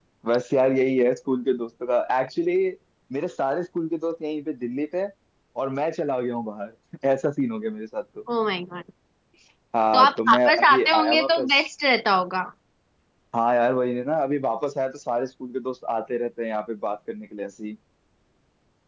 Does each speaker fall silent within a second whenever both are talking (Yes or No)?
No